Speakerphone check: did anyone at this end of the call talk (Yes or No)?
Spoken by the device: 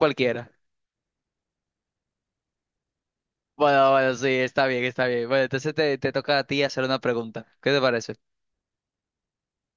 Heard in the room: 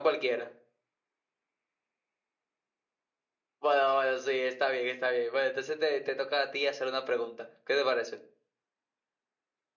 No